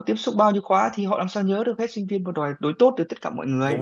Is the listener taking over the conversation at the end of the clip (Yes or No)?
Yes